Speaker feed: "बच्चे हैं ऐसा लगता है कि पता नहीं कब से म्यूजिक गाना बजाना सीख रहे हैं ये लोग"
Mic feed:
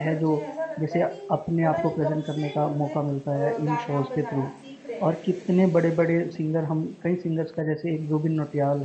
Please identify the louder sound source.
user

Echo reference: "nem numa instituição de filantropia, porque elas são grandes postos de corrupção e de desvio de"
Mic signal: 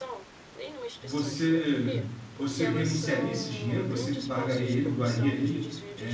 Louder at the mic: user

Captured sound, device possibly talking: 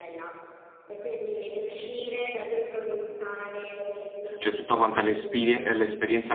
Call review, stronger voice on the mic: user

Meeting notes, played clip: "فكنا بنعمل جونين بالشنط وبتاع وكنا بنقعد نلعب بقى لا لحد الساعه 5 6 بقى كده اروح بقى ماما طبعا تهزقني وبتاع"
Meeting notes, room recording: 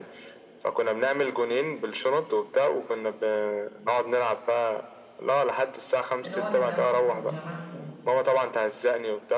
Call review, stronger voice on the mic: echo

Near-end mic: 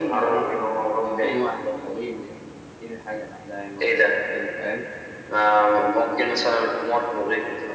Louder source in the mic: echo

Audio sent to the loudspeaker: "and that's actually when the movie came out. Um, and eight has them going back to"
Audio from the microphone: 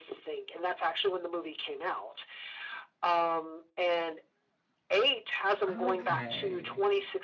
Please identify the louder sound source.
echo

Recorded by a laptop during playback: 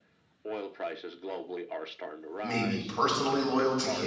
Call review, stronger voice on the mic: user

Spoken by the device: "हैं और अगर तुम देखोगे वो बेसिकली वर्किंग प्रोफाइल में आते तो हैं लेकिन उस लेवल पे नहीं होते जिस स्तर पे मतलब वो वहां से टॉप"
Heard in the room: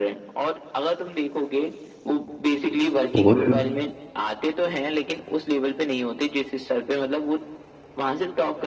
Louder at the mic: user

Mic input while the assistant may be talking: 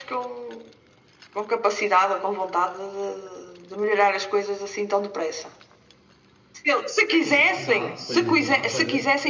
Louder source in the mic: echo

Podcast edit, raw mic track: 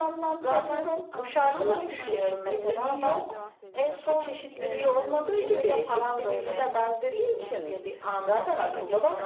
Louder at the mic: echo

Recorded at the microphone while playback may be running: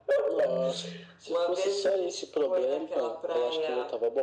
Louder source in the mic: echo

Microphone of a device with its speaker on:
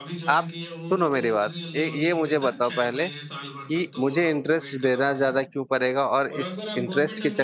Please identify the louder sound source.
user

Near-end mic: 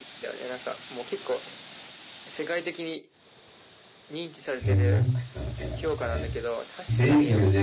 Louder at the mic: user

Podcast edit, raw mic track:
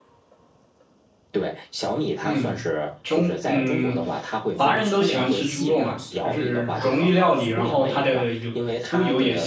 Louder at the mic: user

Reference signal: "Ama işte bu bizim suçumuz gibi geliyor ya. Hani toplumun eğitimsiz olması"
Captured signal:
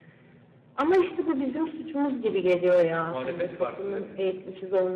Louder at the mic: echo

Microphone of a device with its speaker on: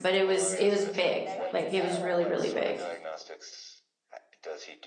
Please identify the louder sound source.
user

